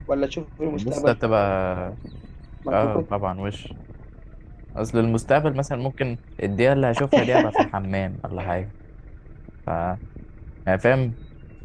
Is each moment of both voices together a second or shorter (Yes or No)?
Yes